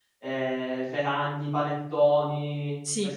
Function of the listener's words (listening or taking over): listening